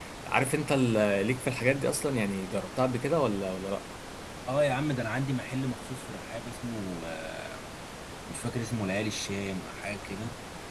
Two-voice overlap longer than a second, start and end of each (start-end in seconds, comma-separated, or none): none